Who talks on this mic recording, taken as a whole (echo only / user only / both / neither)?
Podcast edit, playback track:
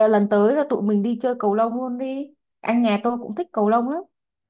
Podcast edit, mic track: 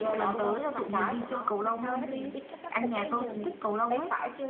both